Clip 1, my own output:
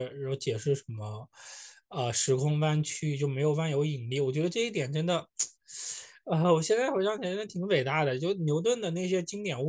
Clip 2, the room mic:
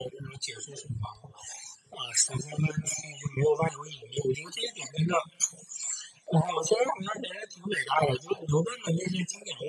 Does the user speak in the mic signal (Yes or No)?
No